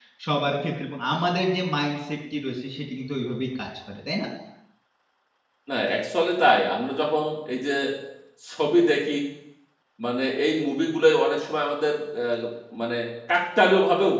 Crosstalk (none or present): none